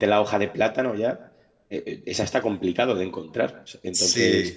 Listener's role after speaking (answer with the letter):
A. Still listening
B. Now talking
A